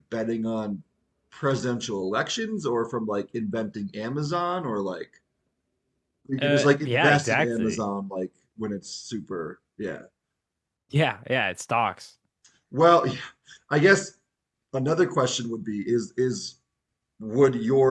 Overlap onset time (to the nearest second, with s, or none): 6 s